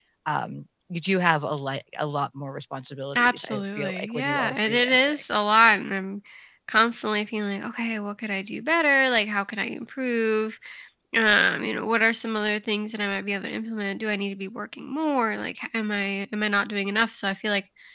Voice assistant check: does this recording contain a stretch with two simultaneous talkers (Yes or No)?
Yes